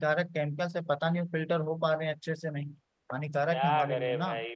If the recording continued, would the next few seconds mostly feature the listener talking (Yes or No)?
Yes